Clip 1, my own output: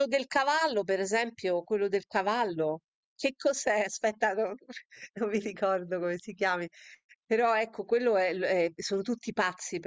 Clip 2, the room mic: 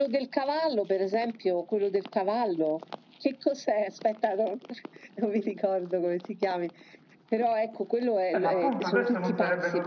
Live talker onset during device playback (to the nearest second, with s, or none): 8 s